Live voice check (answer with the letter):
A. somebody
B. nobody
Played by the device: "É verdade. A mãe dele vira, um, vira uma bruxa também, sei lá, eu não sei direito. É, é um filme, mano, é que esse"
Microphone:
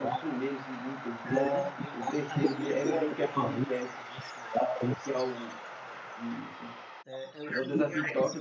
A